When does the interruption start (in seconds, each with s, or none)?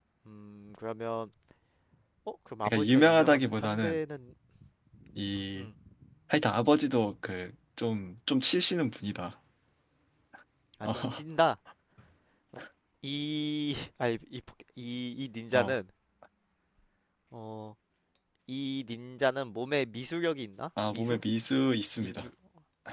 2.6 s